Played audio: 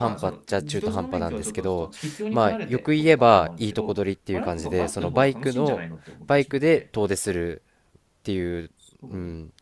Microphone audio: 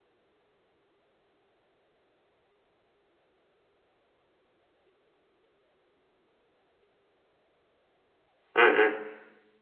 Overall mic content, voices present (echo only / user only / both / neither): user only